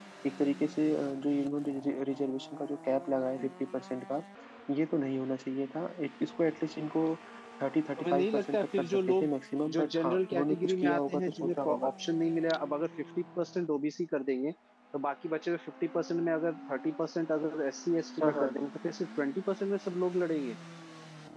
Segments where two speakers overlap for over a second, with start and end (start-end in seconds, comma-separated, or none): 8.0-9.3, 9.8-11.9